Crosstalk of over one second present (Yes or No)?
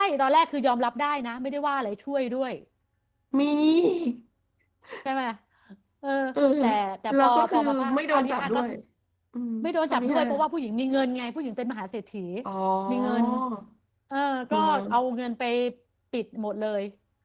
Yes